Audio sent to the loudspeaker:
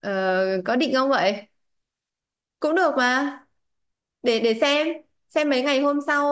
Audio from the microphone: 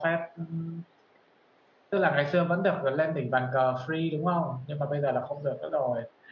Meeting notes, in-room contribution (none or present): present